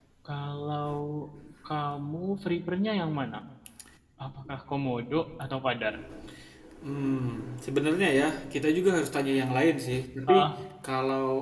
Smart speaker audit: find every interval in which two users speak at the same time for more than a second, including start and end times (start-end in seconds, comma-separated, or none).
none